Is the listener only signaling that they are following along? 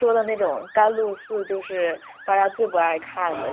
No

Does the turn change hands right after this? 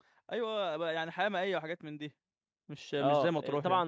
Yes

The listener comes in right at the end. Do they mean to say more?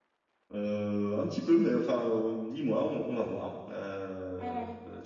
Yes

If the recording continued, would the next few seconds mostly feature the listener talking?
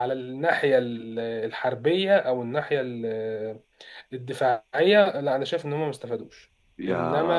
Yes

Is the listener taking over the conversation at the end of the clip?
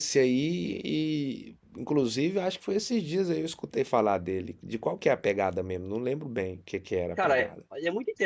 Yes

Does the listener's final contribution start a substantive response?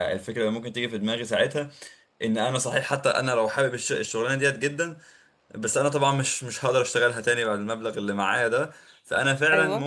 No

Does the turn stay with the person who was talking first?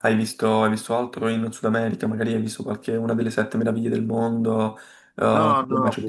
No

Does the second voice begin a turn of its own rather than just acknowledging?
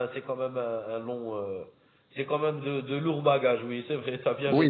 Yes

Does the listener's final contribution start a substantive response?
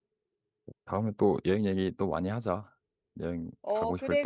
Yes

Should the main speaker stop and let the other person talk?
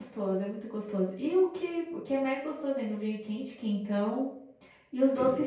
No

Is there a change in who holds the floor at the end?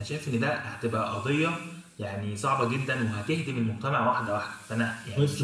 Yes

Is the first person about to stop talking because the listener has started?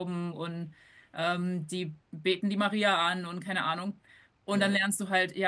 No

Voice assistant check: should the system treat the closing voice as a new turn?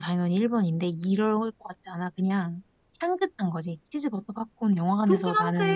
Yes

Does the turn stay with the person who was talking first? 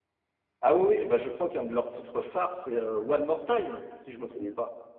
No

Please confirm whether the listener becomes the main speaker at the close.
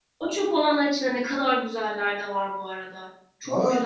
Yes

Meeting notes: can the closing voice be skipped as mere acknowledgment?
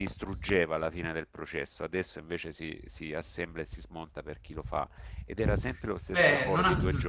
No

